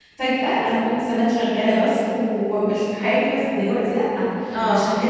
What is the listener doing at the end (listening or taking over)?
listening